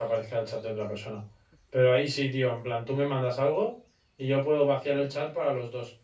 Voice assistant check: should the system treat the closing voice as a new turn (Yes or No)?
No